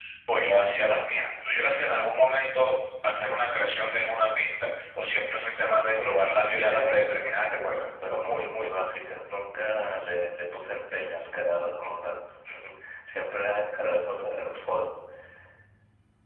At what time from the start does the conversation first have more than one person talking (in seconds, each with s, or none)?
5.5 s